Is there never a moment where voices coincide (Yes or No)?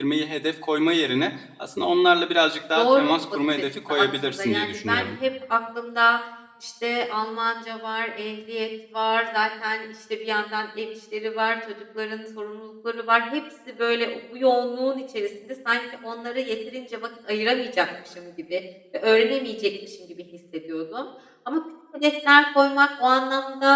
No